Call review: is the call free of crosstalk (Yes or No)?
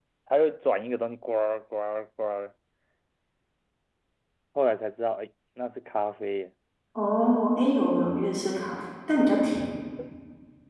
Yes